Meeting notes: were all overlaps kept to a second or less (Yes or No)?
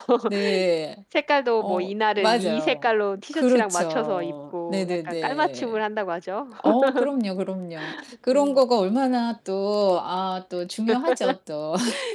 No